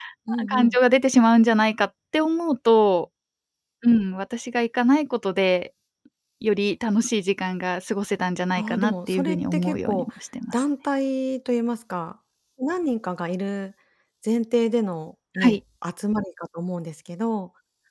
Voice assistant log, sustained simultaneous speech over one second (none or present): present